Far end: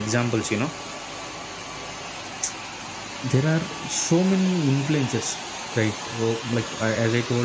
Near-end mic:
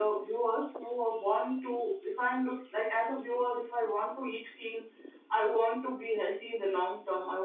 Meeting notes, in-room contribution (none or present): present